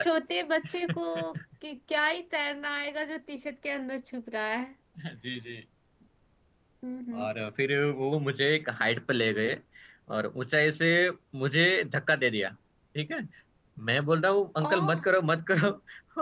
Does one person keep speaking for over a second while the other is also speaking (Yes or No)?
No